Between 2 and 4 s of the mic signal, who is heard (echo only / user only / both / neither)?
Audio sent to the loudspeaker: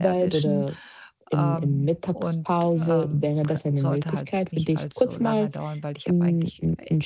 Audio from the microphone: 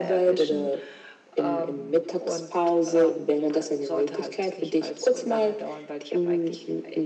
echo only